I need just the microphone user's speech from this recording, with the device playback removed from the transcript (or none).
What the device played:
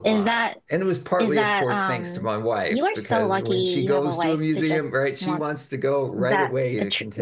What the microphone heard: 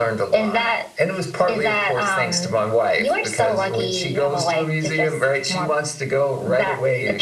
none